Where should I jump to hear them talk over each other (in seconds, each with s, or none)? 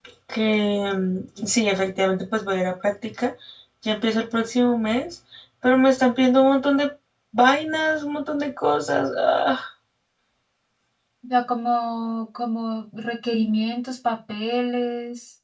none